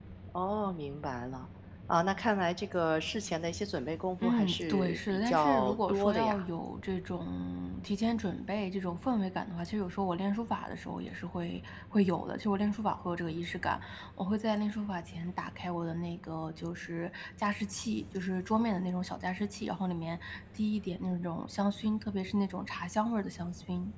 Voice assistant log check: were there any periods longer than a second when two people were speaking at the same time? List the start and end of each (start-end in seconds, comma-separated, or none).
4.2-6.4